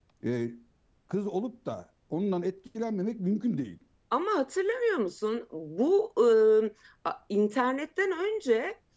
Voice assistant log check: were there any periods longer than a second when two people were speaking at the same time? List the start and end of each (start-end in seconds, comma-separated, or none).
none